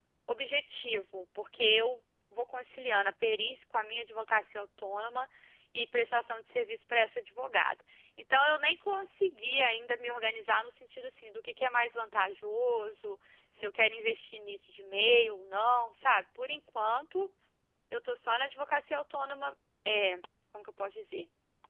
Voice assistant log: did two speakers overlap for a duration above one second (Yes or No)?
No